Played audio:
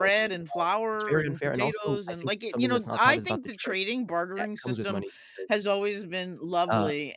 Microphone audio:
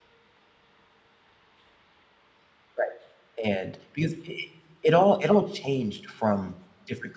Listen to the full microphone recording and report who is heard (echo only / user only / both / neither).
user only